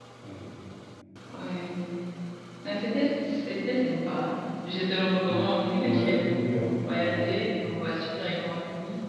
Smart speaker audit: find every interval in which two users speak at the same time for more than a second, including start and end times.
5.8-7.2

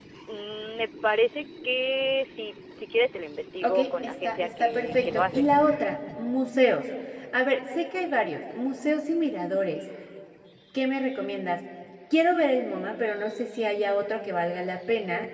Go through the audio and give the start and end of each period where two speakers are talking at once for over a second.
3.6-5.5

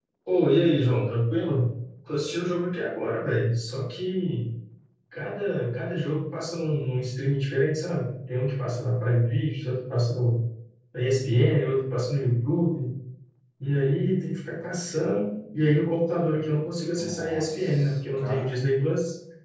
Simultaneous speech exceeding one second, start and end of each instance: 16.6-18.6

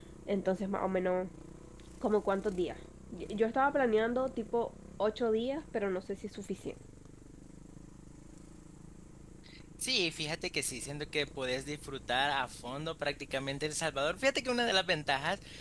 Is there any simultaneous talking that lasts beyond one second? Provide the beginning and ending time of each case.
none

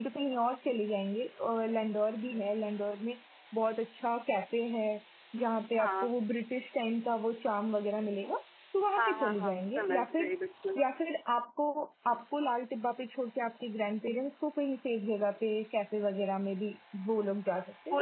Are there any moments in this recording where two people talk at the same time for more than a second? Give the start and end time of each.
8.9-10.3

